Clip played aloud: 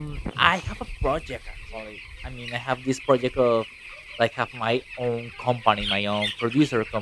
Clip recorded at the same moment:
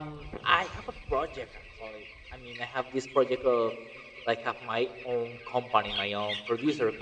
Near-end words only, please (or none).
none